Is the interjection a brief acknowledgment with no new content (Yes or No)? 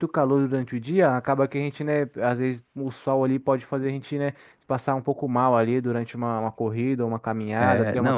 No